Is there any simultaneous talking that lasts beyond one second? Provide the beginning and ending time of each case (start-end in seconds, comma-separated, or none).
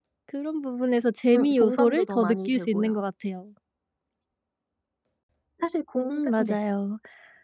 1.4-3.0